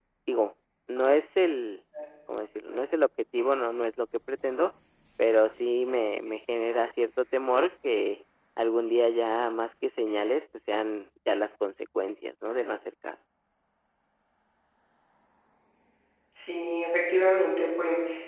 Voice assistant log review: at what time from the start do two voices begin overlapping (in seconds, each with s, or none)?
none